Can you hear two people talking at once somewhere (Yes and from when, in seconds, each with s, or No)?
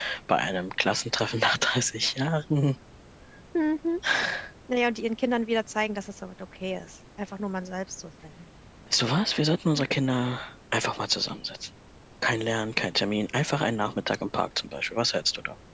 No